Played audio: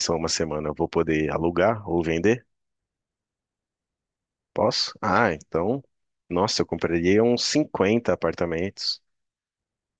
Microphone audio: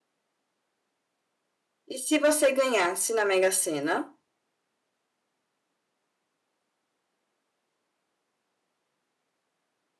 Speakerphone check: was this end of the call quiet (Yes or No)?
No